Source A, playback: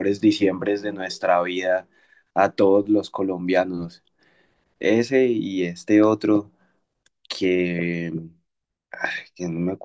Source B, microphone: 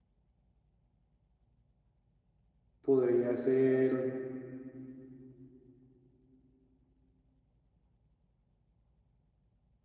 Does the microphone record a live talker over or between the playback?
Yes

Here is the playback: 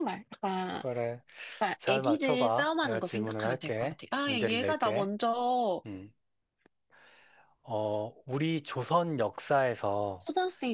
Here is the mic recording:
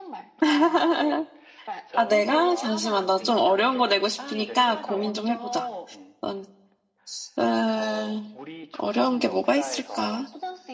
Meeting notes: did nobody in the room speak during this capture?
No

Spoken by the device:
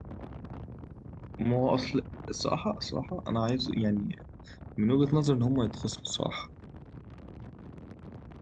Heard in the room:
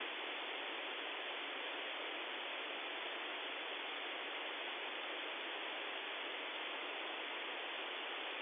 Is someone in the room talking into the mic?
No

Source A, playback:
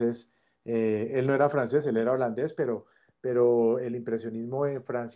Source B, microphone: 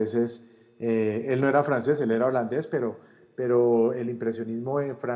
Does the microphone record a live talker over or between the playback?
No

